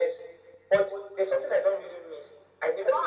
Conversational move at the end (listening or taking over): taking over